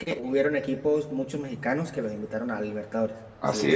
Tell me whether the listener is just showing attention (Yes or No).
No